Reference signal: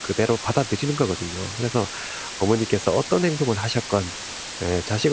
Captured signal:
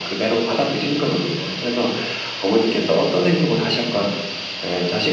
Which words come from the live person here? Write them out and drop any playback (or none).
none